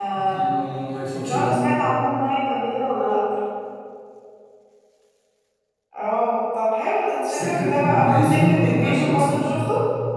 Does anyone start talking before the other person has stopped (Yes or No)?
Yes